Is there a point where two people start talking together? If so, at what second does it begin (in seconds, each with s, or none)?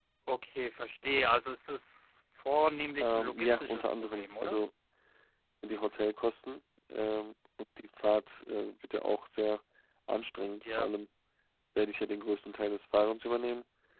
3.0 s